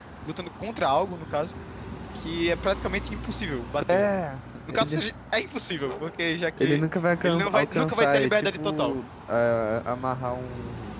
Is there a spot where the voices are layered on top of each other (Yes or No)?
Yes